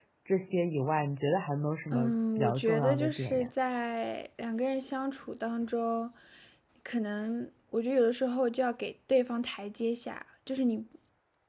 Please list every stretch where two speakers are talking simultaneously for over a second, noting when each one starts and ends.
1.9-3.5

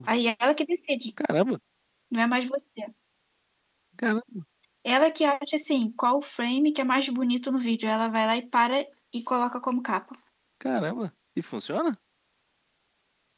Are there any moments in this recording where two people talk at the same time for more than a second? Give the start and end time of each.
none

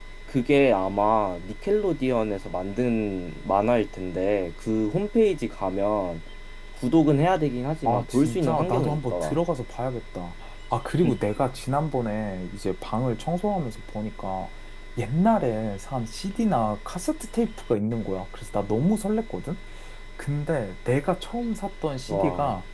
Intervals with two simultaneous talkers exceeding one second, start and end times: 7.8-9.4

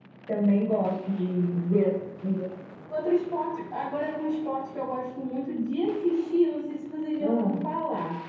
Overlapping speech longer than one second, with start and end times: none

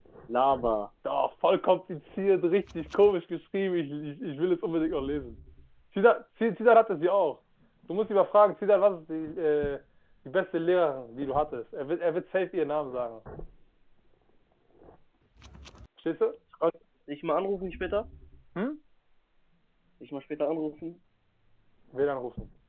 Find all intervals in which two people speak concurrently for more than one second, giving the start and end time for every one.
none

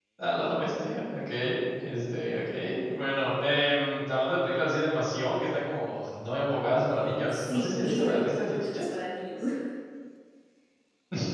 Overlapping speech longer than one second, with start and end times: 7.3-8.8

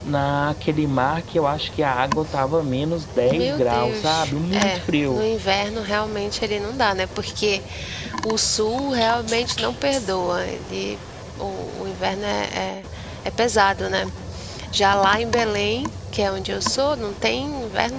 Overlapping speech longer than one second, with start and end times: 3.3-5.2

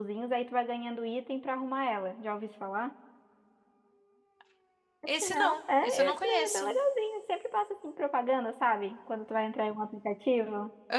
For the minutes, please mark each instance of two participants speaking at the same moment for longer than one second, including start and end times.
5.2-6.7

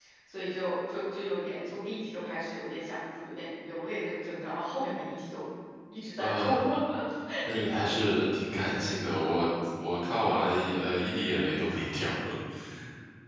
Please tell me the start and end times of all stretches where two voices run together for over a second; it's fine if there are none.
none

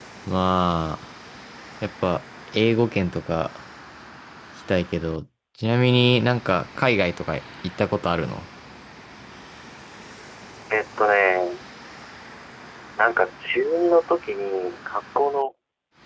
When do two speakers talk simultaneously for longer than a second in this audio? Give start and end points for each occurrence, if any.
none

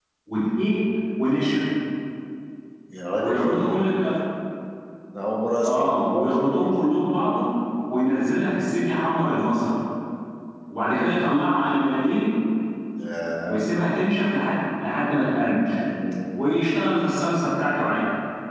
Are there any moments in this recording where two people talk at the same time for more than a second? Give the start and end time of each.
5.7-6.9

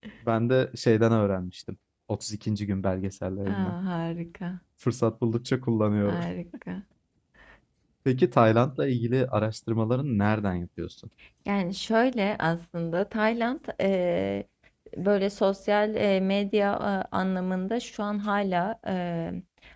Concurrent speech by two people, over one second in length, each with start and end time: none

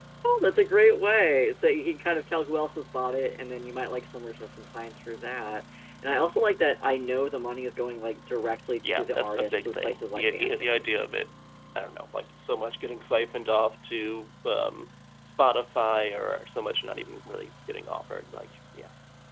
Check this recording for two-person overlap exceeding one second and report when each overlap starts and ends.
8.8-10.8

